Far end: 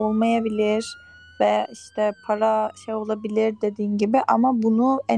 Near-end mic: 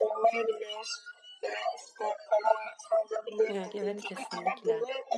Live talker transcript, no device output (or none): Ya, evet kesinlikle.